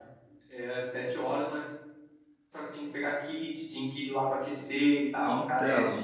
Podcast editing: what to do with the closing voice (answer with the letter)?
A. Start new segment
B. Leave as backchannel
A